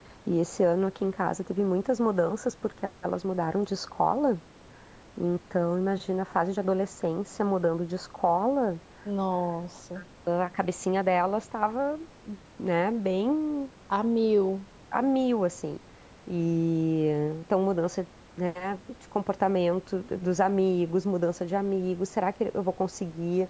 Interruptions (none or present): none